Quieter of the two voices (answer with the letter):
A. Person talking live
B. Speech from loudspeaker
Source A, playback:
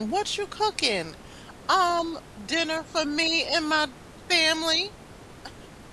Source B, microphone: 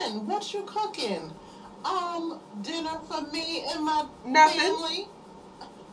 B